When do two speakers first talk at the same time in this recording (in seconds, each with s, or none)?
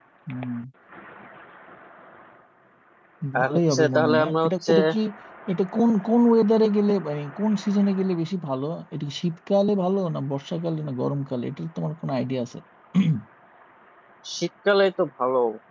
3.4 s